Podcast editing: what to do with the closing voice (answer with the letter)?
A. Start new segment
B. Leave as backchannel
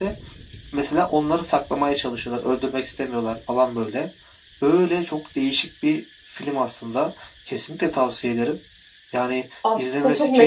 A